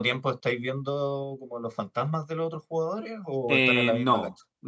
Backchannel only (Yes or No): No